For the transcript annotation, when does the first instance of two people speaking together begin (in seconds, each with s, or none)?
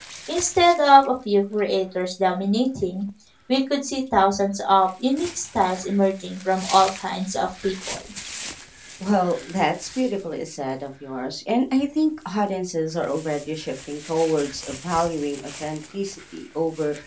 none